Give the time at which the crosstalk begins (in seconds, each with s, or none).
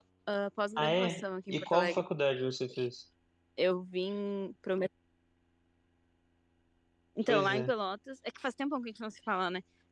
0.8 s